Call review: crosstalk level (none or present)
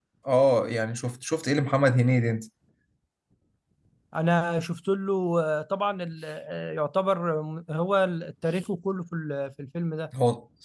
none